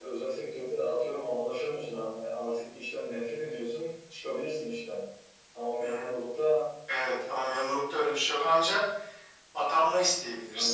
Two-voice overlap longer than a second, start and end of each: none

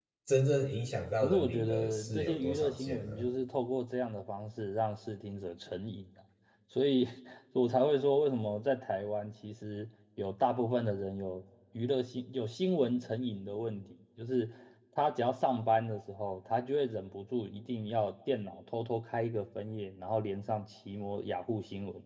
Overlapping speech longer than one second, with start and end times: 1.2-3.3

